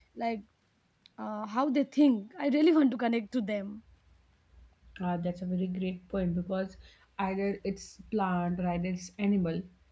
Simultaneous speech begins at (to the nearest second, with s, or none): none